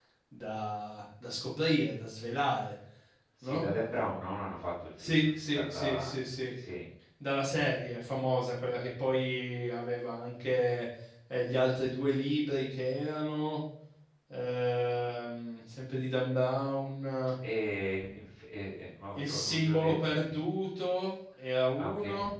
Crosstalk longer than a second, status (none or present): present